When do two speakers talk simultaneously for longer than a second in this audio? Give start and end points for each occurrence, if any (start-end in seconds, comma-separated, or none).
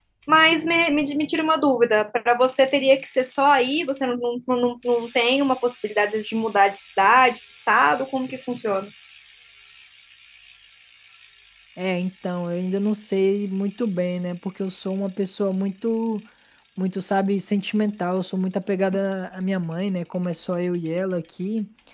none